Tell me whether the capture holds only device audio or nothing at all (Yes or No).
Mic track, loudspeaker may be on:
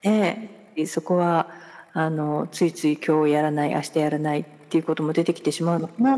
Yes